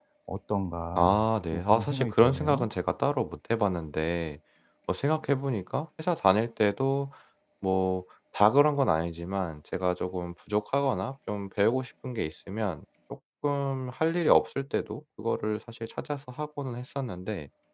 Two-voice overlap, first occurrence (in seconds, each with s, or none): 1.0 s